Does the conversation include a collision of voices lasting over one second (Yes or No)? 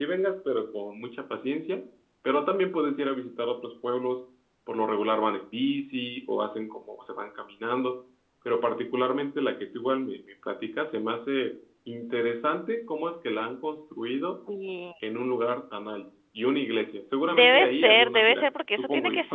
Yes